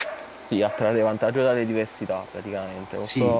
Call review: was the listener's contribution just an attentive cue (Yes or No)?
Yes